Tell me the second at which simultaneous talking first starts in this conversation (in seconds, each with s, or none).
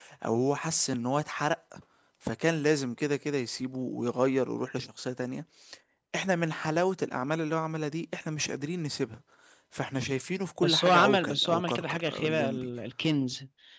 10.6 s